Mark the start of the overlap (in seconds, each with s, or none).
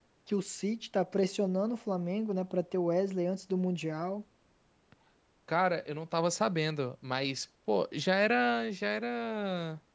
none